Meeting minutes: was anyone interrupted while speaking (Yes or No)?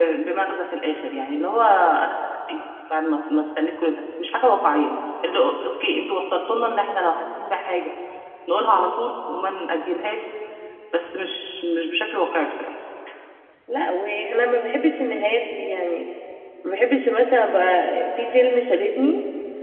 No